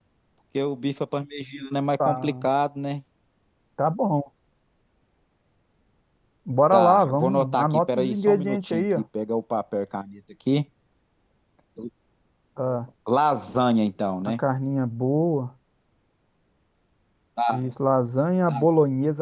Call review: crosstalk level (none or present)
present